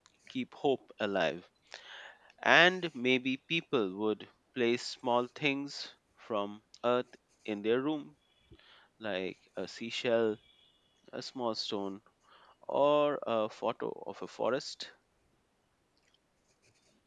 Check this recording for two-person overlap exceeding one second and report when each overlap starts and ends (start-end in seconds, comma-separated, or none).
none